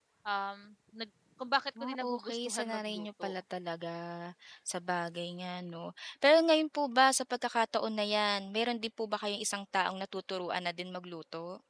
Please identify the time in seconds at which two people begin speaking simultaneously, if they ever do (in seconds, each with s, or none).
1.8 s